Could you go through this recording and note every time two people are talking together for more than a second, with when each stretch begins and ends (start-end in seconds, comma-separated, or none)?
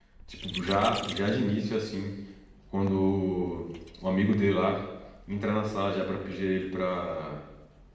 none